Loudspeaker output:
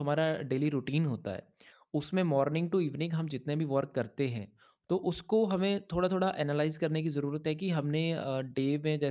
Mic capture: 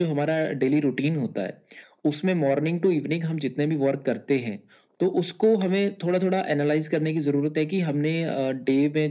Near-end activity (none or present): none